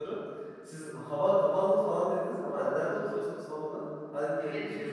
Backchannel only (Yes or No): No